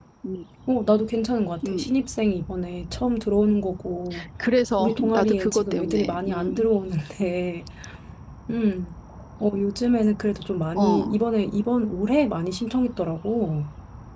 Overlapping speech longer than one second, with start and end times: 4.8-6.5

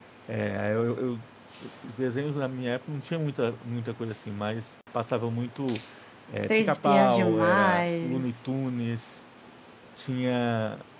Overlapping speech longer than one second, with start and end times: 6.5-8.4

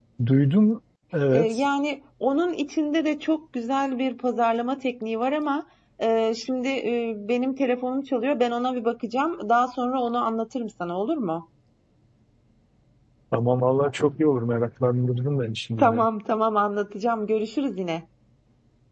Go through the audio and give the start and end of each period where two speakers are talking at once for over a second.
none

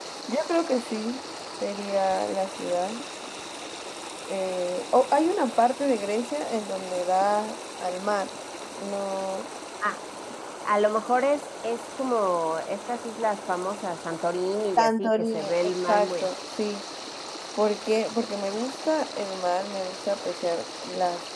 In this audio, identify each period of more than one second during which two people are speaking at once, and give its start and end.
14.8-16.3

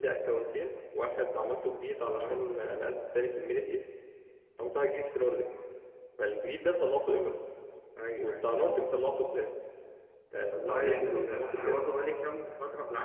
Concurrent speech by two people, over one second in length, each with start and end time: 10.5-11.8

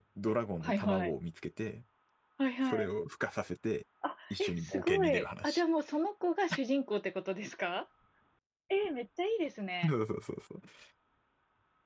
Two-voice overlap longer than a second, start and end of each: 4.3-5.6

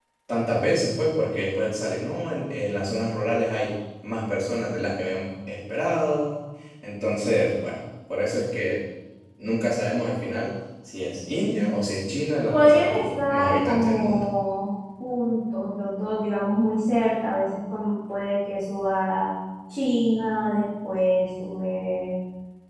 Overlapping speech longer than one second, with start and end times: 12.5-14.3

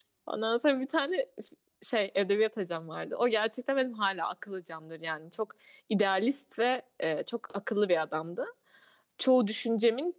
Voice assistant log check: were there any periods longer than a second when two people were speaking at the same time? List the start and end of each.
none

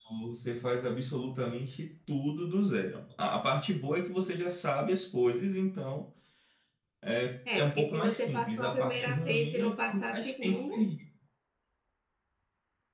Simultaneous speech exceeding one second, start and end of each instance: 7.5-10.6

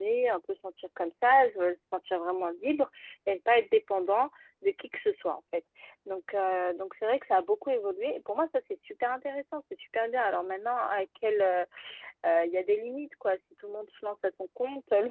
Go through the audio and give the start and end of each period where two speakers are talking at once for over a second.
none

